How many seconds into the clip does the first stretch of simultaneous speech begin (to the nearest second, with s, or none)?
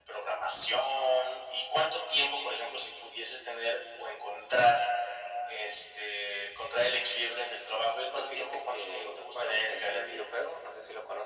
8 s